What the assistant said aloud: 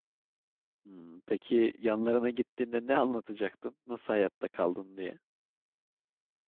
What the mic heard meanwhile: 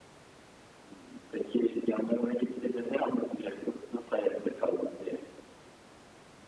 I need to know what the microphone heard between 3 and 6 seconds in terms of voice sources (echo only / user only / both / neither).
echo only